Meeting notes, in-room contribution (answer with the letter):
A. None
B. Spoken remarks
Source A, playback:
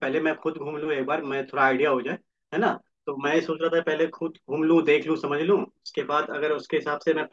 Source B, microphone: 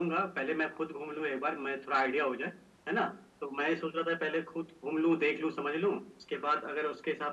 A